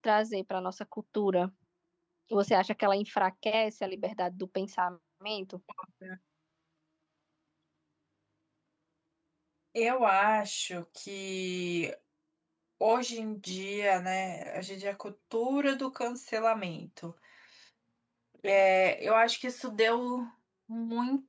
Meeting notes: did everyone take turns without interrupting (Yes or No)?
Yes